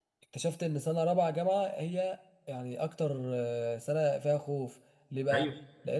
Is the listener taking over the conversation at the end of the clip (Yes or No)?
No